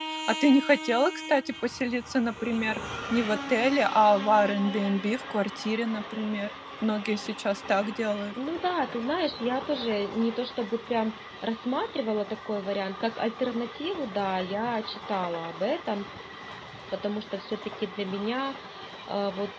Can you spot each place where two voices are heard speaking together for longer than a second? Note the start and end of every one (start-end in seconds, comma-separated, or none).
none